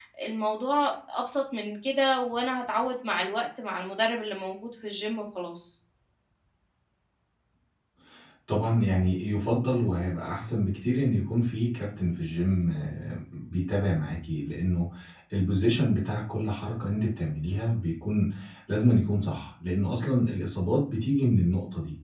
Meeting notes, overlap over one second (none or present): none